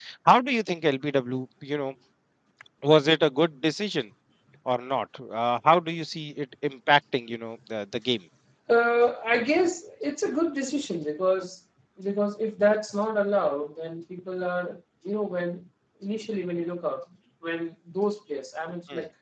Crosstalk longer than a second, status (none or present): none